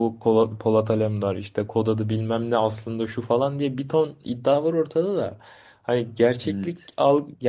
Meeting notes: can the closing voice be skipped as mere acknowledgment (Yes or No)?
Yes